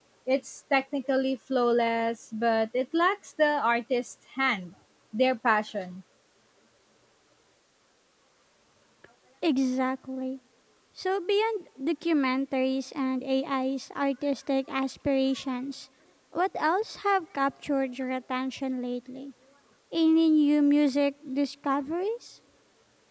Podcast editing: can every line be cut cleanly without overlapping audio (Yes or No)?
Yes